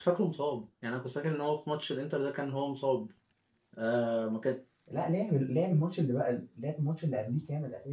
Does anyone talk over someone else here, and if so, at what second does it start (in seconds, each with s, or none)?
none